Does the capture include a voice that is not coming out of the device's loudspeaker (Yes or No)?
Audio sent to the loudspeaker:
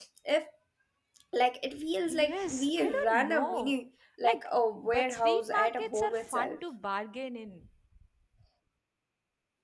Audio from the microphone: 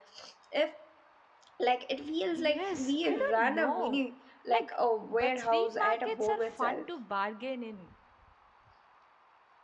No